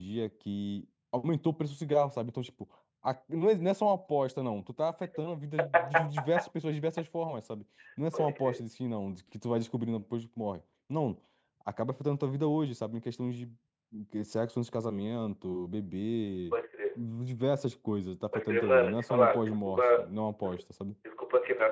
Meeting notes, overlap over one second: present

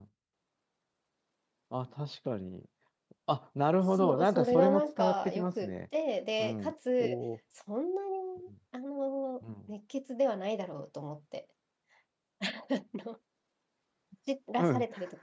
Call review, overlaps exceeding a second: present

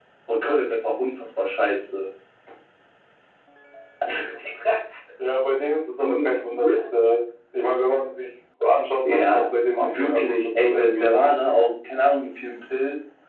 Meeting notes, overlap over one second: present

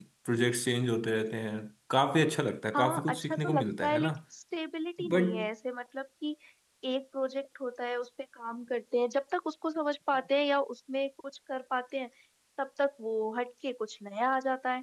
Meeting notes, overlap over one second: present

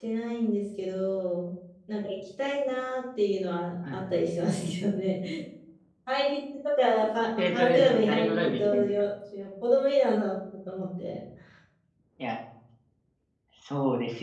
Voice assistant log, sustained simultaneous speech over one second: present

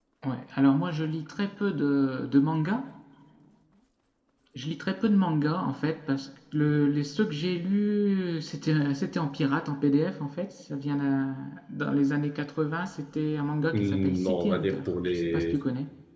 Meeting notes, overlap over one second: present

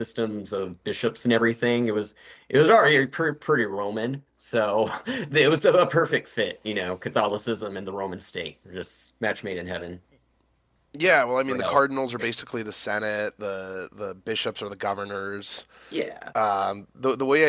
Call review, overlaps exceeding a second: none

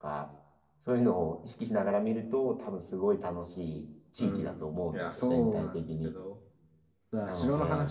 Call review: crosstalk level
present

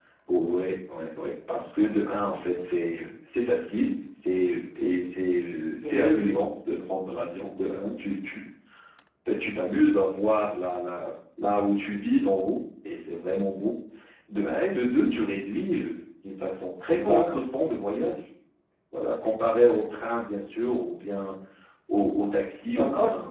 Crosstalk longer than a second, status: none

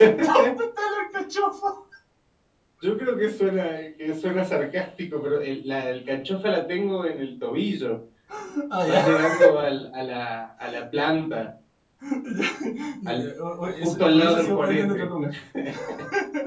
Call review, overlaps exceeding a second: present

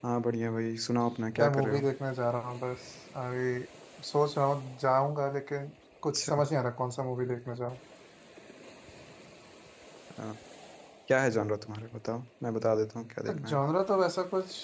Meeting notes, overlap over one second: none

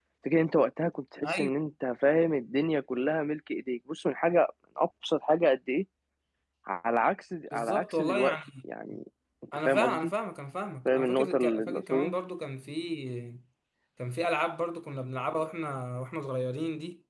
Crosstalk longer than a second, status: present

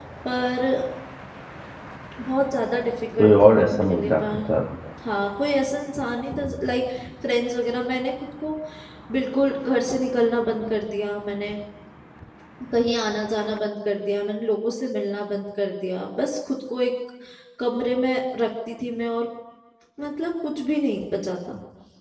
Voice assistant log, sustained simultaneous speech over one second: present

